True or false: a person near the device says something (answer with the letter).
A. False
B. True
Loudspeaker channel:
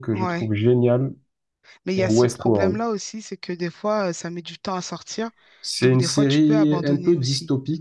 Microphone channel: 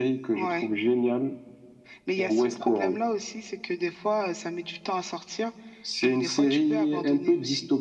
A